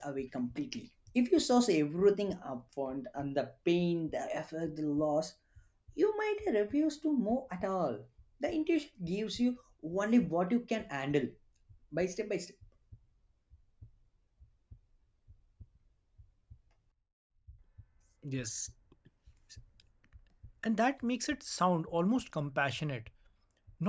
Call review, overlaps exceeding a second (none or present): none